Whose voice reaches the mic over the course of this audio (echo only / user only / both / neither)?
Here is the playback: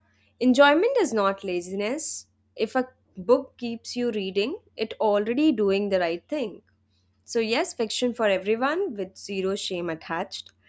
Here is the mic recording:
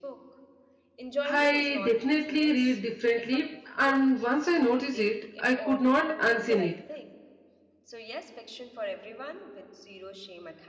both